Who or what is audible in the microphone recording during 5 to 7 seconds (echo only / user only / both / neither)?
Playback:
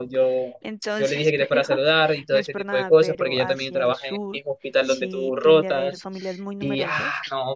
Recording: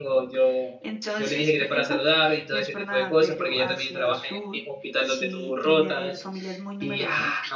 echo only